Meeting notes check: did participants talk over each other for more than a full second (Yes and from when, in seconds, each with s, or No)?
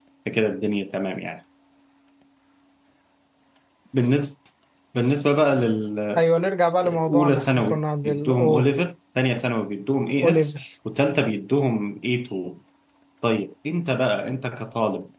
Yes, from 6.8 s